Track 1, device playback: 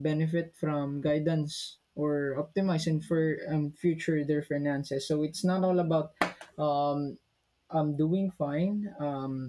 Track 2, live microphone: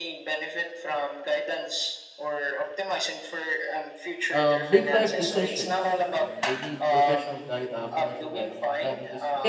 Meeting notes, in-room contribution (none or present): present